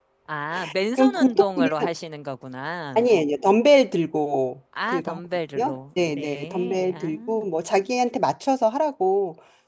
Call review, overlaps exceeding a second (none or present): present